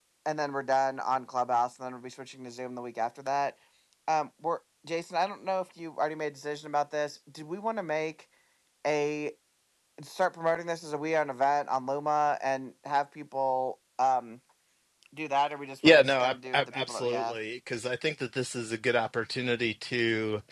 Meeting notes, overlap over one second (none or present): present